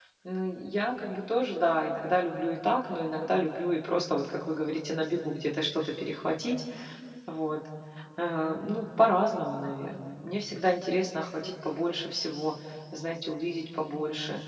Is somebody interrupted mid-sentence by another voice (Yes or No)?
No